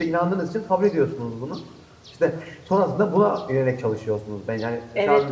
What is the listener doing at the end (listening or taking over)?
taking over